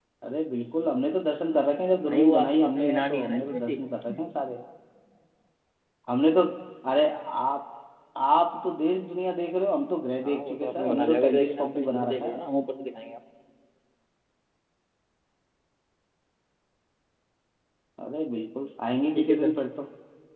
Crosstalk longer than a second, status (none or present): present